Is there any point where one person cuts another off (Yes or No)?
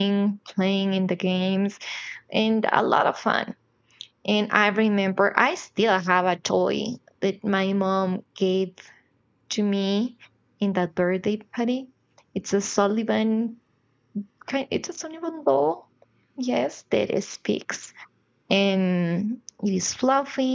No